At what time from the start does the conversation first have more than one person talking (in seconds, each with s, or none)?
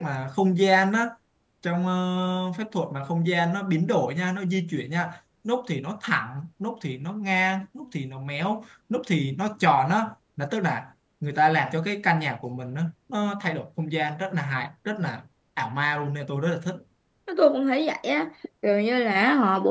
none